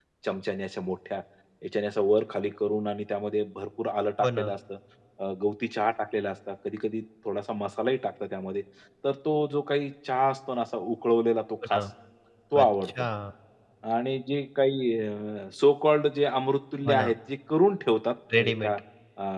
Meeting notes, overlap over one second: none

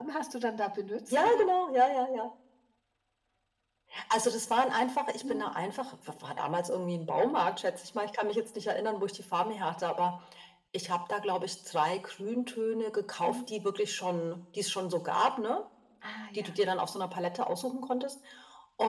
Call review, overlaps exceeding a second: none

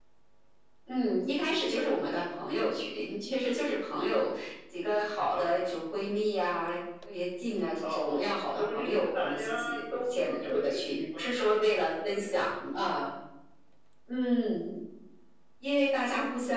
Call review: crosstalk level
present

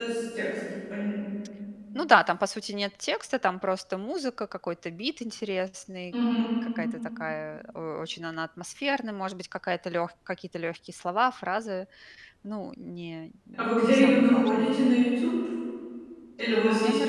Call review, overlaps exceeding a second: present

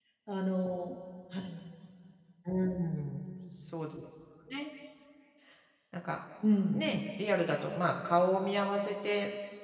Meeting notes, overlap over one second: none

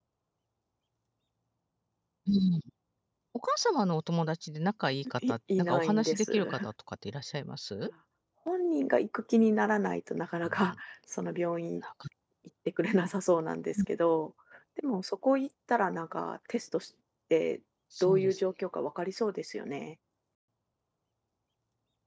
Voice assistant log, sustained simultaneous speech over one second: present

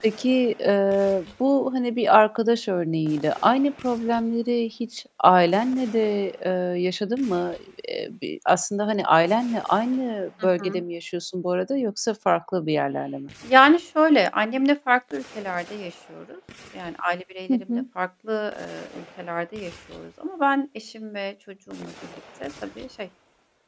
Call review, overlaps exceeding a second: none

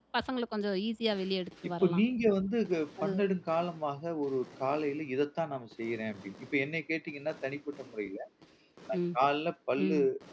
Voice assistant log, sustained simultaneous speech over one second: none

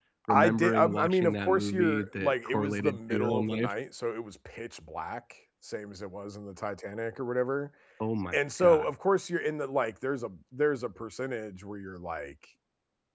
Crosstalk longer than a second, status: present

